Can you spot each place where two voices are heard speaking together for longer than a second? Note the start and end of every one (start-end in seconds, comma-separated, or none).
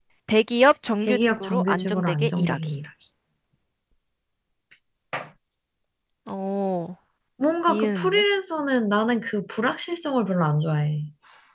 1.0-2.6